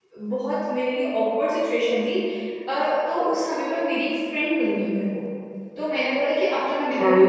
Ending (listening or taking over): listening